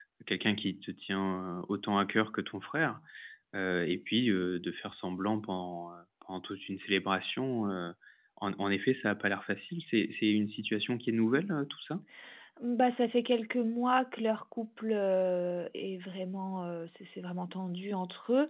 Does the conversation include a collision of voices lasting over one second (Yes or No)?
No